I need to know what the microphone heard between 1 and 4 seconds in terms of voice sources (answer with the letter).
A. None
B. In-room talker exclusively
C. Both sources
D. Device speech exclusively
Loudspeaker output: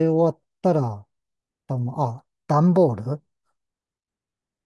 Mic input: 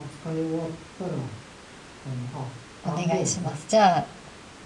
C